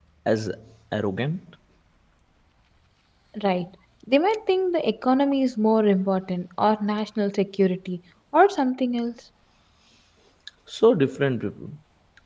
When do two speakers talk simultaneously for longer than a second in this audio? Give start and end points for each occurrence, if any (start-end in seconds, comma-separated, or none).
none